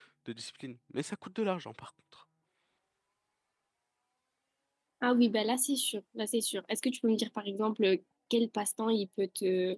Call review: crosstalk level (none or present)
none